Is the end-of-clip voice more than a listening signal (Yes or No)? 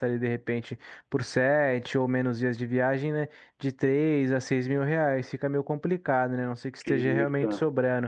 No